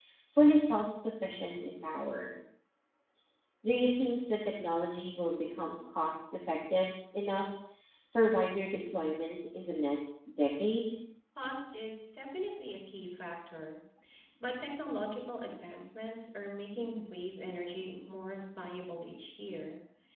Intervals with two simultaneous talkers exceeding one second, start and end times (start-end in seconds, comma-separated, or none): none